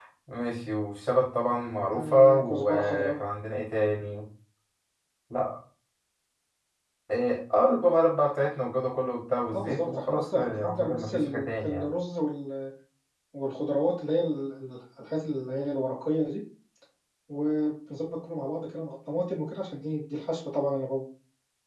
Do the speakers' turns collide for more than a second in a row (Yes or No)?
Yes